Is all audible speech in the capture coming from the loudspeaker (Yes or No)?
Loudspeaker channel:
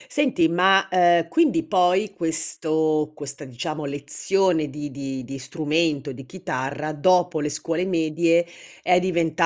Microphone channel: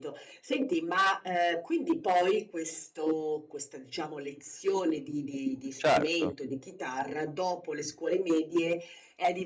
No